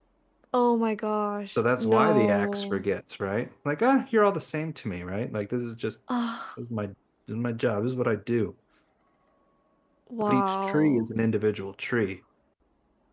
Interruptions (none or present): present